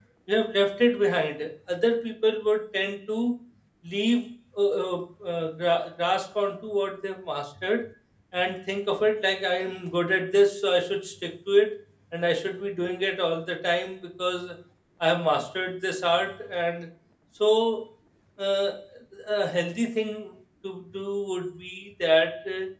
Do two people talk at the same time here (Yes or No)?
No